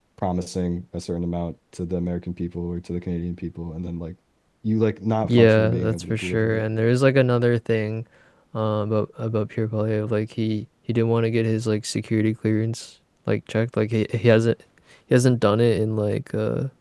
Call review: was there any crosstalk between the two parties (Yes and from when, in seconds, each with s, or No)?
Yes, from 5.3 s